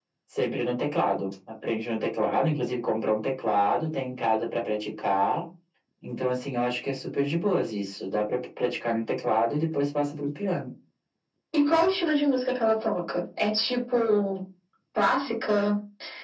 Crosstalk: none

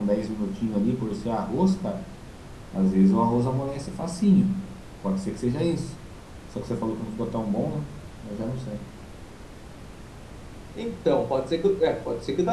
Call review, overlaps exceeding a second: none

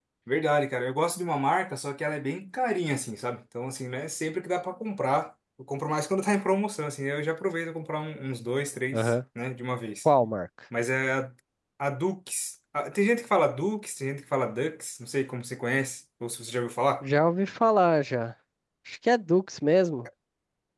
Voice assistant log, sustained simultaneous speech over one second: none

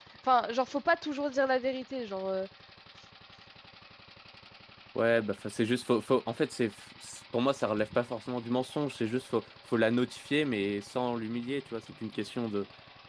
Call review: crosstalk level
none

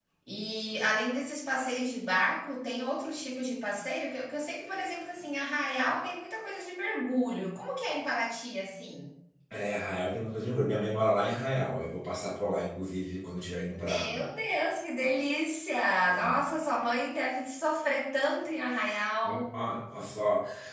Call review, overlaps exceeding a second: none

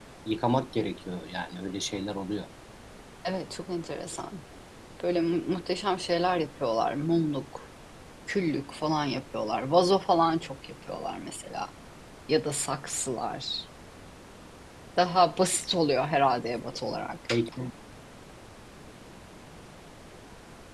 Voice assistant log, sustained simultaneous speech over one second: none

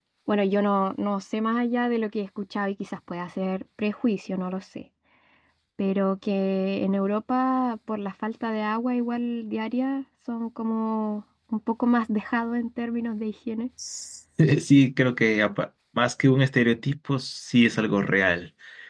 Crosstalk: none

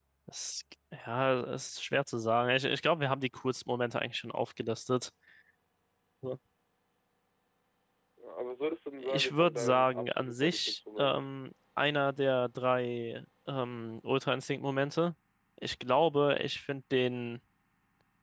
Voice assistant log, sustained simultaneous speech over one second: present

